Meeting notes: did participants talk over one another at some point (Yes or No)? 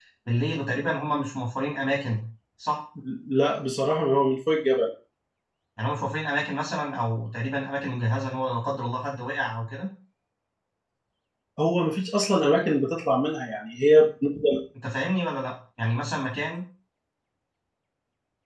No